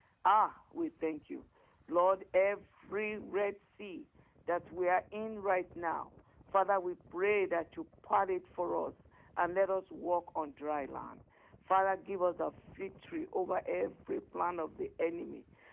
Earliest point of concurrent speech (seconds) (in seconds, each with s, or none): none